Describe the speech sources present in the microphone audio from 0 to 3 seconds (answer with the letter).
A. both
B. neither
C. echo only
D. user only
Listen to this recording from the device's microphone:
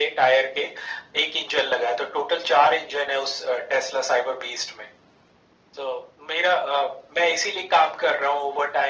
C